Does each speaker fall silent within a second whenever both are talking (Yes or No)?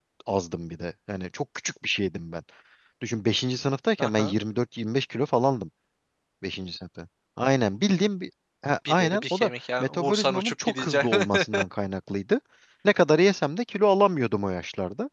No